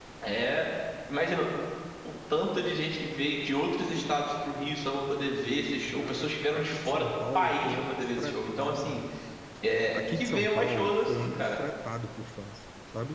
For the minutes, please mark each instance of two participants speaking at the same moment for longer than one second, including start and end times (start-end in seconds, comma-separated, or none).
6.0-9.0, 9.9-11.6